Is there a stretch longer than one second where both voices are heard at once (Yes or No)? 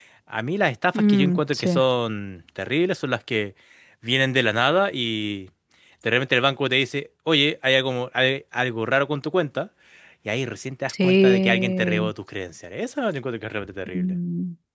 Yes